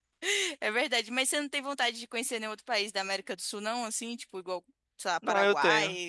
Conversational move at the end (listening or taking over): taking over